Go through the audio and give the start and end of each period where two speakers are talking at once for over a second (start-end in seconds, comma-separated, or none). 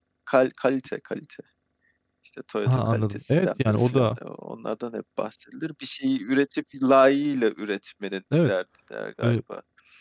2.6-4.1